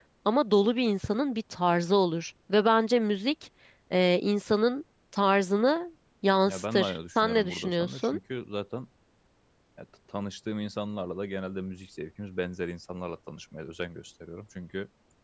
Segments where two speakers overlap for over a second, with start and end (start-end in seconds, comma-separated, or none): 6.5-8.2